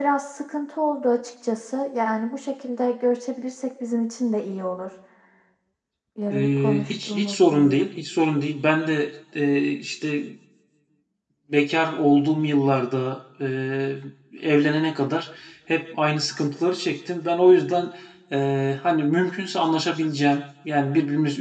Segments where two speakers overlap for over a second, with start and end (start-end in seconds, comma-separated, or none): 6.3-7.9